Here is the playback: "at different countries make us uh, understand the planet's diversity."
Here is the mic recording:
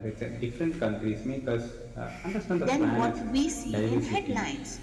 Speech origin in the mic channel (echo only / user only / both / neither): both